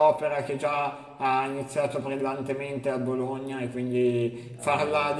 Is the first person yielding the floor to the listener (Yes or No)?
No